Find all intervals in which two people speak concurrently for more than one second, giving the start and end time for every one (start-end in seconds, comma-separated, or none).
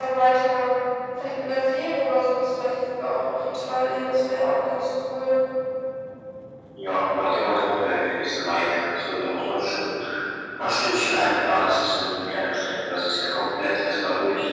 none